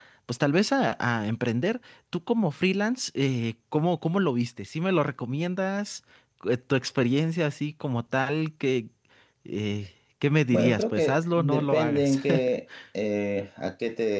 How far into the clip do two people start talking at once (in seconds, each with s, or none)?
10.5 s